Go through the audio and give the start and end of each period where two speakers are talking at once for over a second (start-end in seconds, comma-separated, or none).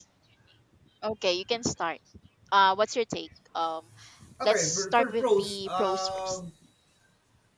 4.4-6.4